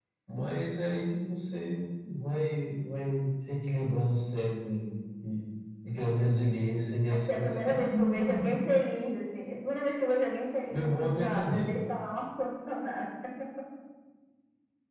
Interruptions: present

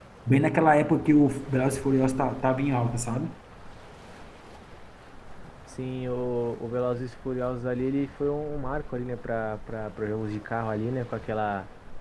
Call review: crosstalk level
none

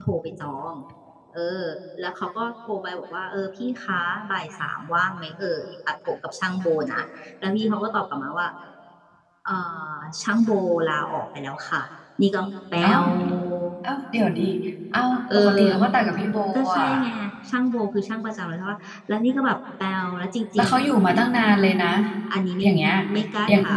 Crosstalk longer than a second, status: none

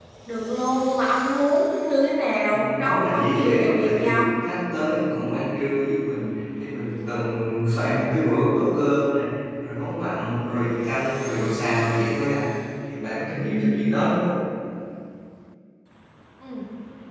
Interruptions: present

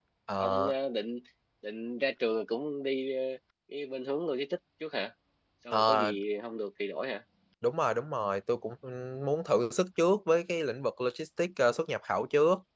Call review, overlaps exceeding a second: none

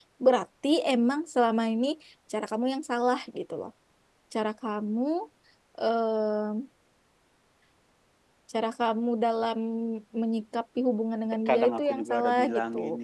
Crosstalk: present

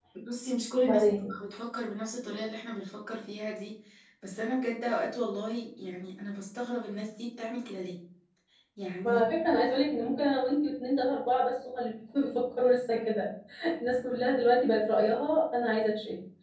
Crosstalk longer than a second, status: none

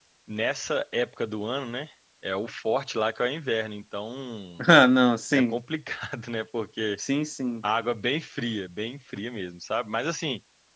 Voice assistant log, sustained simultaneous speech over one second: none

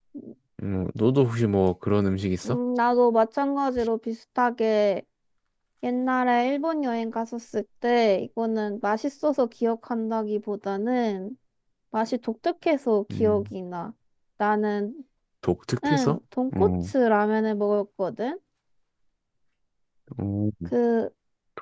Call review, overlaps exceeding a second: none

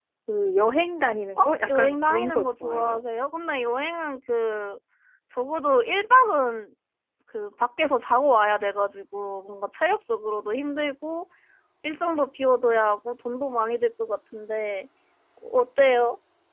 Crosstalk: present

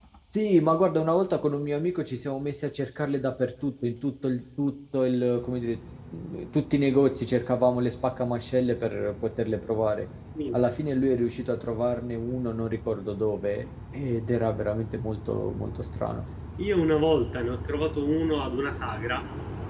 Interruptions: none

